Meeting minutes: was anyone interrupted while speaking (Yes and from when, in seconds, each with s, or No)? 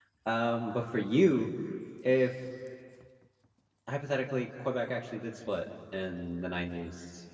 No